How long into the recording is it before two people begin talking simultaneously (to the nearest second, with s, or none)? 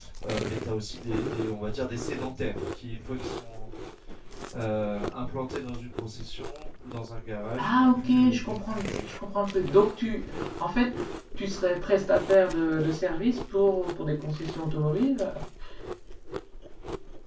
8 s